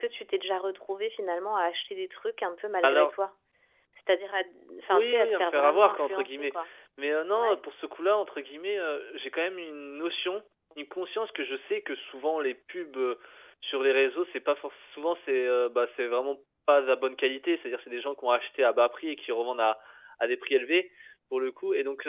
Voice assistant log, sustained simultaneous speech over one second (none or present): present